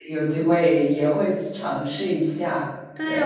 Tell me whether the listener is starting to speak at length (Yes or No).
Yes